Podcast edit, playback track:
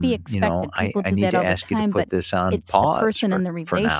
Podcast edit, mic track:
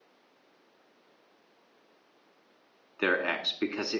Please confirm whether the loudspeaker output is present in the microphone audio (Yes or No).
No